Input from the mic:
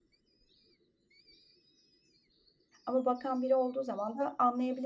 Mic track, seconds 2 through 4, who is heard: user only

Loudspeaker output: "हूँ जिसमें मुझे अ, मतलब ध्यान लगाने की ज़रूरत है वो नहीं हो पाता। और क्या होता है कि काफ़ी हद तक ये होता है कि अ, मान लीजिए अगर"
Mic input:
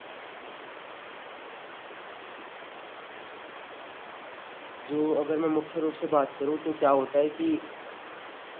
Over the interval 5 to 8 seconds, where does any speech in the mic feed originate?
user only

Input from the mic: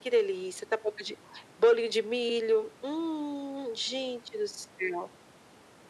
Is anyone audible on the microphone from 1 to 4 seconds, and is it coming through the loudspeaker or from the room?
echo only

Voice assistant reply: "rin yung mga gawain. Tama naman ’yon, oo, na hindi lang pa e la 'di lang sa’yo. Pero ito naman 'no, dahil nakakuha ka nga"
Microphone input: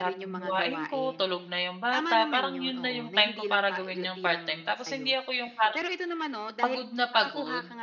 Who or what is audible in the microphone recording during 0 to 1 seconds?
both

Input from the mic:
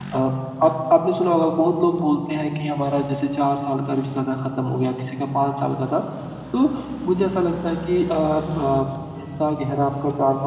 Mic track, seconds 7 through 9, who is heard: user only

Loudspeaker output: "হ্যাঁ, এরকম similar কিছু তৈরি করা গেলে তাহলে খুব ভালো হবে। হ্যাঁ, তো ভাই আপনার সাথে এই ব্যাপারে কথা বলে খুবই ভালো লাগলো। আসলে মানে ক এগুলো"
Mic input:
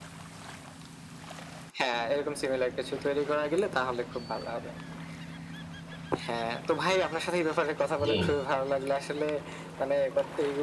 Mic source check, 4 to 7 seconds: echo only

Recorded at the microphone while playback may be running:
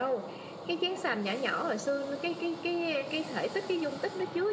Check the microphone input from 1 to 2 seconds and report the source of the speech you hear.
echo only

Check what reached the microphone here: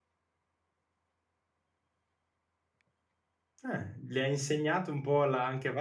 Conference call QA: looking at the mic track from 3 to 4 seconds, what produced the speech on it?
user only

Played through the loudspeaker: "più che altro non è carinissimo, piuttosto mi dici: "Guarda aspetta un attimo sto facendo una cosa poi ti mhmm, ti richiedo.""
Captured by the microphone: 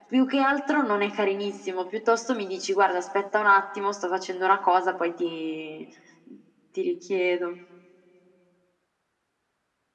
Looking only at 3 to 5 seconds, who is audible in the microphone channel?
echo only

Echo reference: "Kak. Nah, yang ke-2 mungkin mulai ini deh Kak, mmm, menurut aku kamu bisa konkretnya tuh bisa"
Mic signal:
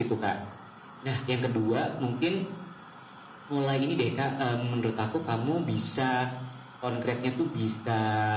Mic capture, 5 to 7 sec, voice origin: echo only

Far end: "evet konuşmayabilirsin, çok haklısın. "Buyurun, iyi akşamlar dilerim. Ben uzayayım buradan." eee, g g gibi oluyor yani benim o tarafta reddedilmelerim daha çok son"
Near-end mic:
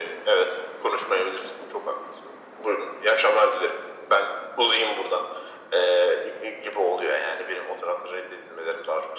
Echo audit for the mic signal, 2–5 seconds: echo only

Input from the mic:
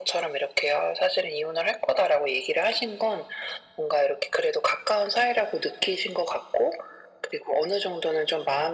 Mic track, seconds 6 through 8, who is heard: echo only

